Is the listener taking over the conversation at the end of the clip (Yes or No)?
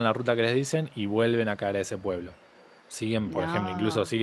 No